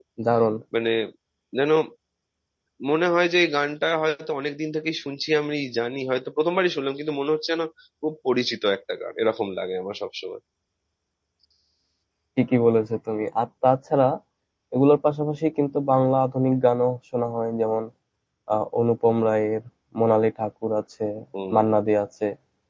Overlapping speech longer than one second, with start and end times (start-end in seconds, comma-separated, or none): none